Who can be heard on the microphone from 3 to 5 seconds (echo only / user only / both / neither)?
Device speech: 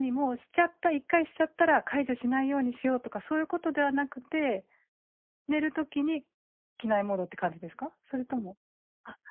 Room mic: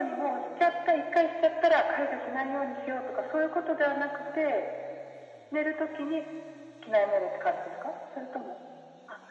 echo only